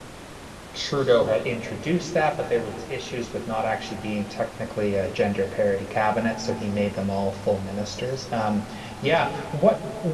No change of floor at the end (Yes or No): Yes